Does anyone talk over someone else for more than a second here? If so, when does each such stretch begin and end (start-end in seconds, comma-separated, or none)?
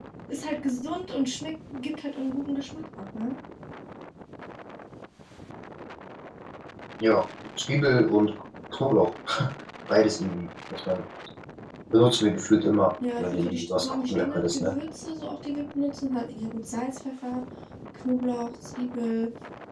13.2-14.7